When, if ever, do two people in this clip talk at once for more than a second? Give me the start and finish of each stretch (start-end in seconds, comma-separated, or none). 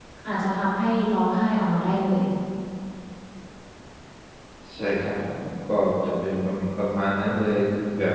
none